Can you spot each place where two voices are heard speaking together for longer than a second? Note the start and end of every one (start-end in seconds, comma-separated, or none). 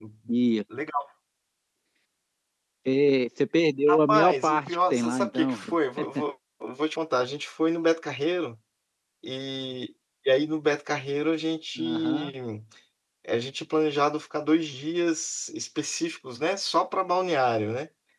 3.9-5.6